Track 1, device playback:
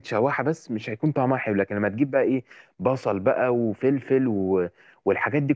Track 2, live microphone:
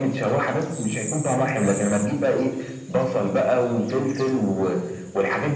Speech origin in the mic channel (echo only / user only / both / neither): echo only